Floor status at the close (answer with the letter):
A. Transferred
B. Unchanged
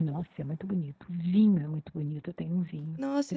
A